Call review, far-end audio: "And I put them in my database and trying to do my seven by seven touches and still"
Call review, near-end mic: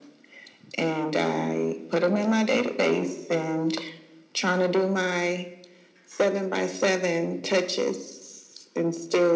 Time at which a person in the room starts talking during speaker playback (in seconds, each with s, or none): none